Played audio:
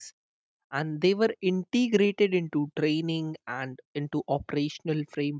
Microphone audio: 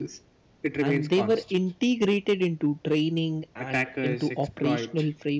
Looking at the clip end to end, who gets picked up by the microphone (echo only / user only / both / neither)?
both